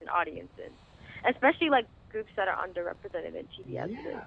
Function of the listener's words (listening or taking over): taking over